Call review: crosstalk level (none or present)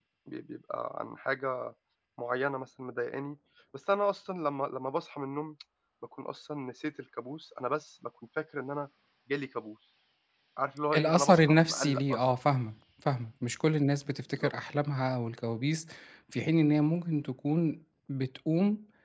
present